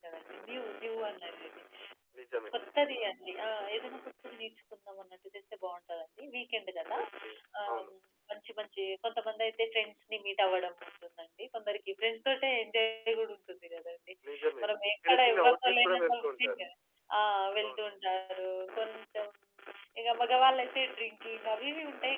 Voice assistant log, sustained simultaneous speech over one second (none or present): present